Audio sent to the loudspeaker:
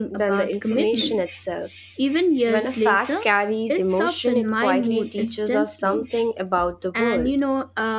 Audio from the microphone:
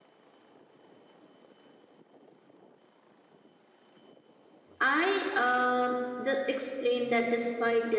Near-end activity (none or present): present